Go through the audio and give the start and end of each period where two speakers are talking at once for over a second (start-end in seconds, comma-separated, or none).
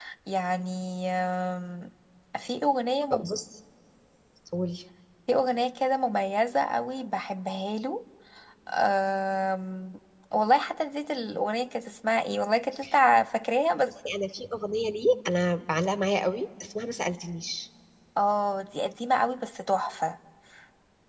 none